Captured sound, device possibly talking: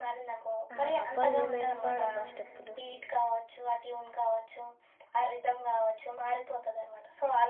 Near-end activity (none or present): present